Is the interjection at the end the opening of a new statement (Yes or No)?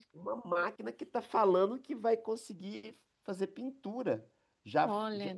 No